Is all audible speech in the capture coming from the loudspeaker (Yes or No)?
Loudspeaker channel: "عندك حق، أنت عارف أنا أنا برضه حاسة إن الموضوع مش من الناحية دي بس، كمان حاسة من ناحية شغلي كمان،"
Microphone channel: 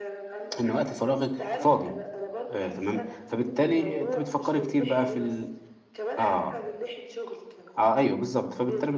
No